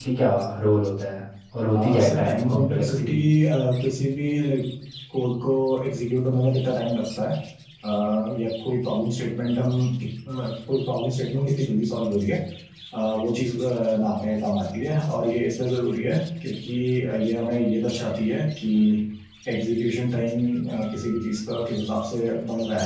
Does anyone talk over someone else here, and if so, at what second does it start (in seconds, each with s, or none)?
1.7 s